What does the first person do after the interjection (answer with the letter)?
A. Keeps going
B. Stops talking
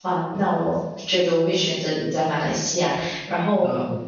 A